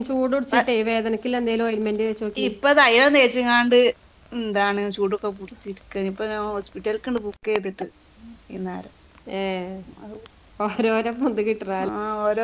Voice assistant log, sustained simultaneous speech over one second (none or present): none